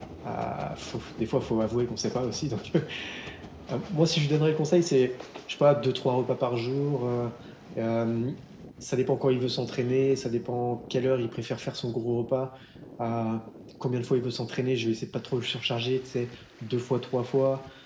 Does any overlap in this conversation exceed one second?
No

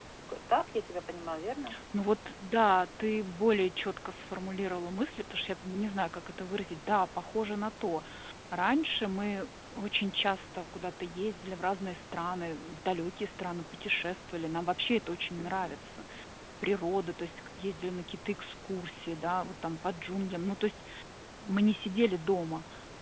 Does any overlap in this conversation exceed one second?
No

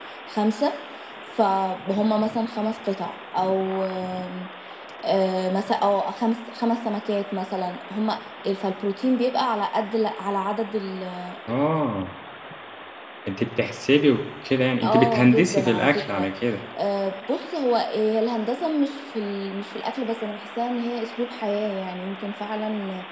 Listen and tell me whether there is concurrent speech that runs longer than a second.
Yes, from 14.8 s

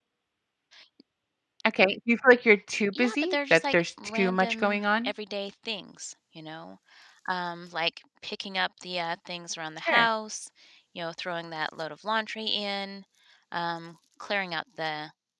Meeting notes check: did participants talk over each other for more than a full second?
Yes, from 2.9 s

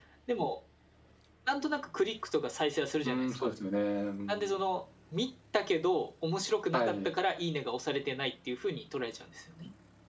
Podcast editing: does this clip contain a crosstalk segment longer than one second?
No

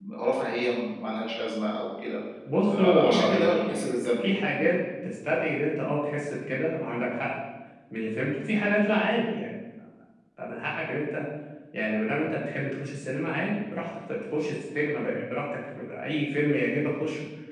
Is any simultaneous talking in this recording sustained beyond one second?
Yes, from 2.8 s

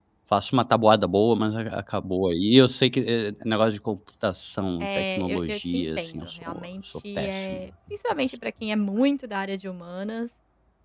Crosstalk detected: Yes, from 4.8 s

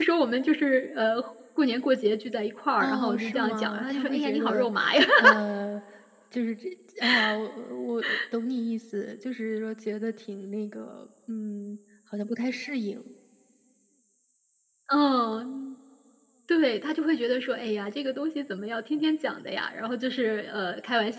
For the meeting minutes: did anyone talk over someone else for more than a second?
Yes, from 2.8 s

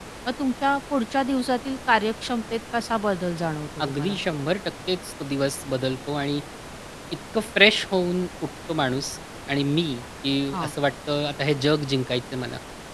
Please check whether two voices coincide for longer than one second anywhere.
No

